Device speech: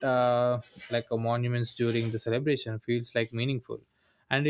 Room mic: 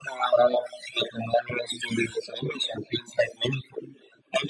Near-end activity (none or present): none